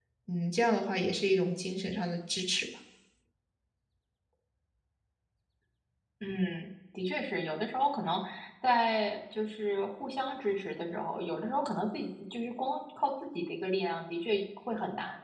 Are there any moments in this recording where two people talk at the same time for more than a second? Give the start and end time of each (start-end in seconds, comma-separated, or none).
none